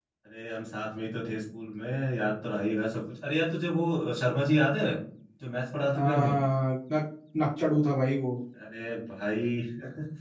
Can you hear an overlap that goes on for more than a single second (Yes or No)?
No